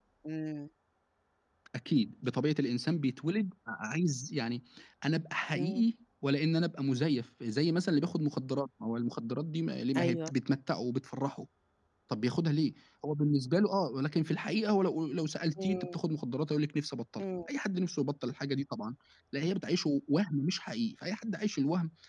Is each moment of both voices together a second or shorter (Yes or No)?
Yes